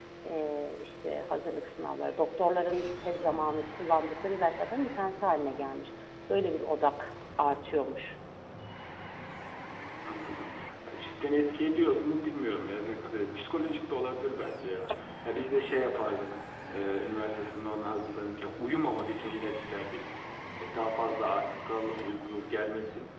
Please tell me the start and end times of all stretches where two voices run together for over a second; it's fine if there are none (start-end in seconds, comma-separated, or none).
none